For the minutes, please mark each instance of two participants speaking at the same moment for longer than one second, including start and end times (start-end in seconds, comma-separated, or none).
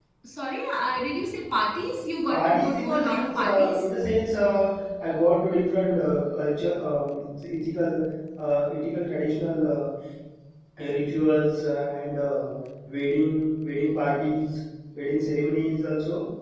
2.3-3.8